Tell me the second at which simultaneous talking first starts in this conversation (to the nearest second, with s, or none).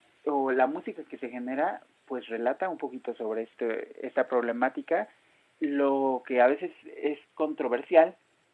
none